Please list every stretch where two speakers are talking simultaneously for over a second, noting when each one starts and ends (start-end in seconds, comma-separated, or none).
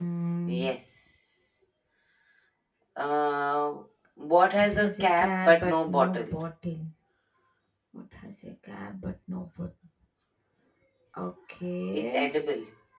4.5-6.3